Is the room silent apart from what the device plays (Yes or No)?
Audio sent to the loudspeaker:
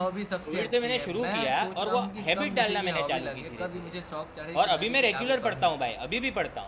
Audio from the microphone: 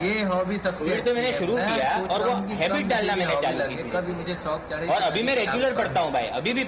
Yes